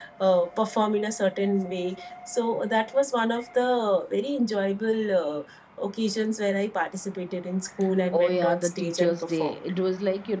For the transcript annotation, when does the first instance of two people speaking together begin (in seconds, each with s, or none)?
8.1 s